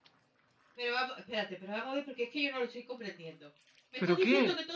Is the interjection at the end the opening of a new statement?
No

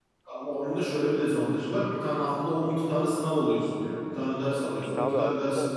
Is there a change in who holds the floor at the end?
Yes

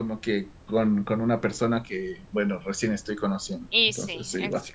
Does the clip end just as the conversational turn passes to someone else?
Yes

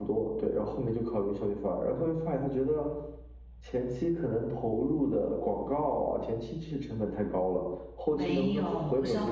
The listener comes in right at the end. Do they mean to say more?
Yes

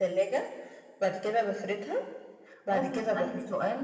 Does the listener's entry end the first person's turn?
Yes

